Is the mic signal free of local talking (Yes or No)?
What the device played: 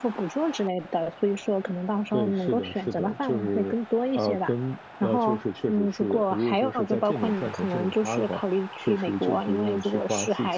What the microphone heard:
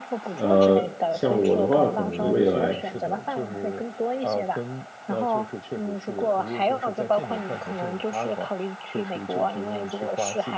No